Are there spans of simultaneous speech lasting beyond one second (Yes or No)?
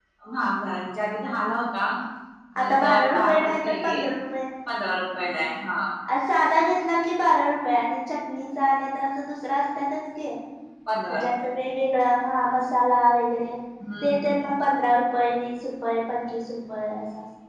Yes